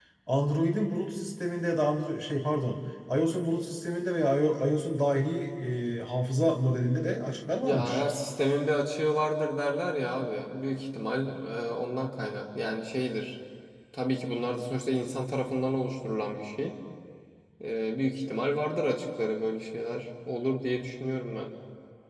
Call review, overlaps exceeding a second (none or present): none